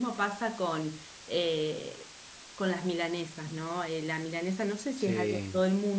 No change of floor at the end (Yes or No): Yes